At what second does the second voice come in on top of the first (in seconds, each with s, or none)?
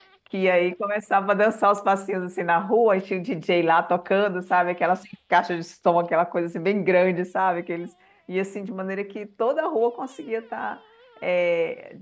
none